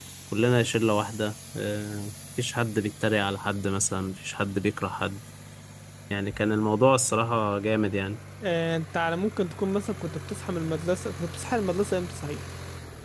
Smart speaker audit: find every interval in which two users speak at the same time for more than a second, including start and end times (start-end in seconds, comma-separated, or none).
none